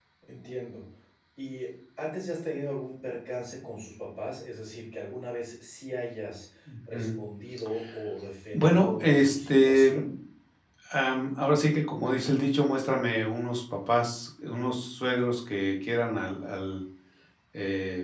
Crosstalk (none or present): present